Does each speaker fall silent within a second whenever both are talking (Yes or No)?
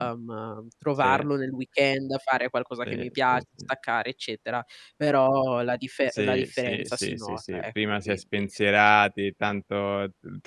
No